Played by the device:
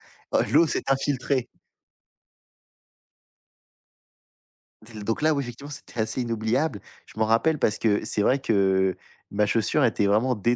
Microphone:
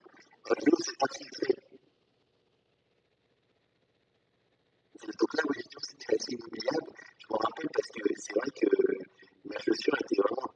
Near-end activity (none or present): none